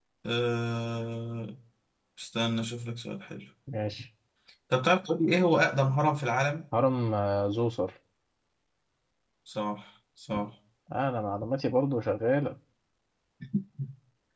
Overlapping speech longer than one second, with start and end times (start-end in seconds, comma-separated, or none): none